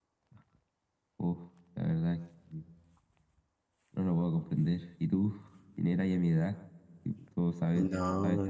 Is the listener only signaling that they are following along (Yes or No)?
No